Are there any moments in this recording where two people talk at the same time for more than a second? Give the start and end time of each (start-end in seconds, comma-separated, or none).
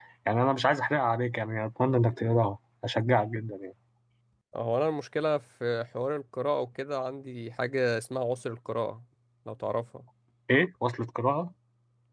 none